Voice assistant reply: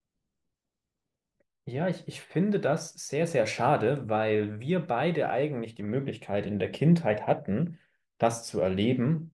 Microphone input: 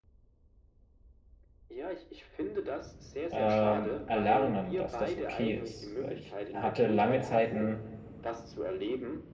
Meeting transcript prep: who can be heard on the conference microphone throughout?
both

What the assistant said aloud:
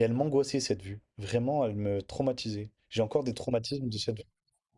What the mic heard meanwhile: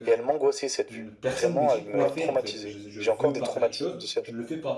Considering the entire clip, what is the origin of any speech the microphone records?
both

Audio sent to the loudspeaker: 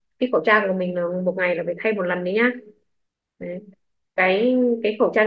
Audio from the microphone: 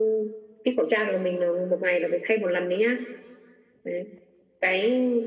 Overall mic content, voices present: echo only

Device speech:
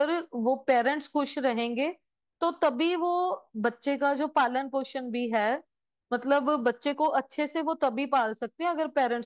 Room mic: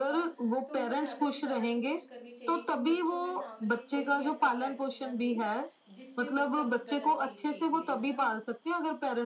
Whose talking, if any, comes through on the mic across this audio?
both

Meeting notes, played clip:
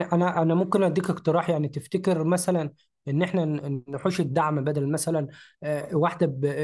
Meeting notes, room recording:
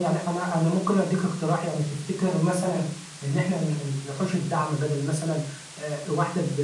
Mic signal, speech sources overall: echo only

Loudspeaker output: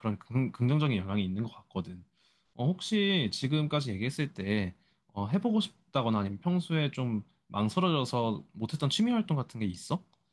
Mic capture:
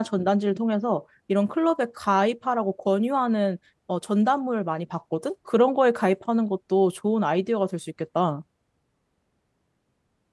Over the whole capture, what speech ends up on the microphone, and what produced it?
user only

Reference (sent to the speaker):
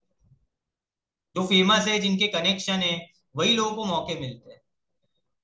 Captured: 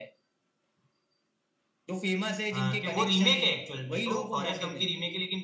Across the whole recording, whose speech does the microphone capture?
both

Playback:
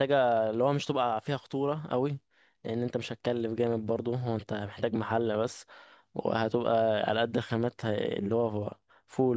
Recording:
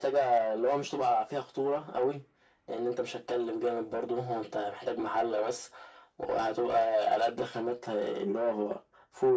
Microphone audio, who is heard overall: echo only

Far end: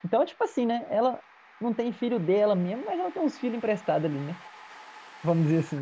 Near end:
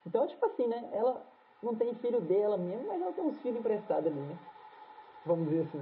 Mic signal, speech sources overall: echo only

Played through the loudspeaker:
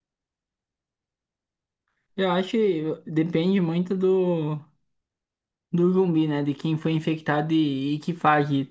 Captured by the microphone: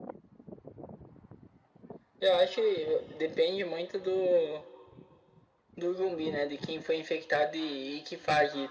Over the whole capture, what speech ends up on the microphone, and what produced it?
echo only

